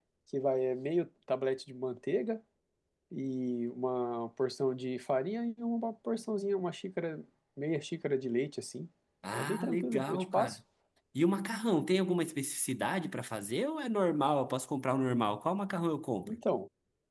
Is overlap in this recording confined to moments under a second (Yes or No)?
No